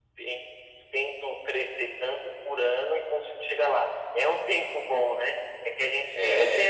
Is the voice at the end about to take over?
No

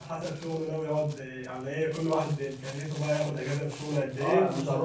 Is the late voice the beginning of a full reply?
Yes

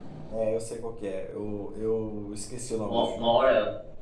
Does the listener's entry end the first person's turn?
Yes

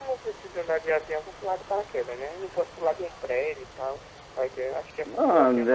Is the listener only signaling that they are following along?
No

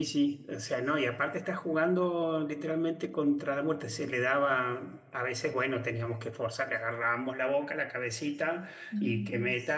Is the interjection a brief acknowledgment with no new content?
Yes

